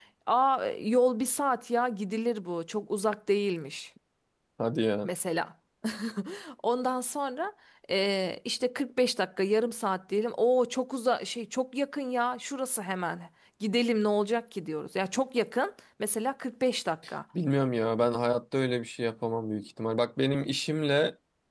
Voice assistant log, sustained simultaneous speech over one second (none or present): none